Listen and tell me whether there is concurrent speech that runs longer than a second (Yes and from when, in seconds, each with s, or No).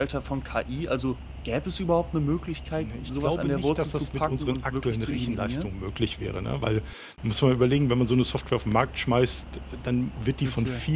Yes, from 2.8 s